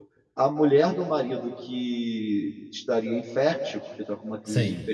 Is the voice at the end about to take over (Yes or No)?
No